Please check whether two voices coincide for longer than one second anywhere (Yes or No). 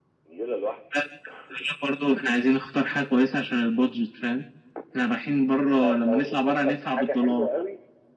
Yes